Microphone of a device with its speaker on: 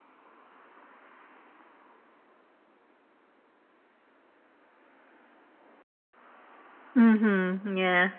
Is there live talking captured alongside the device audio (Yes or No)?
Yes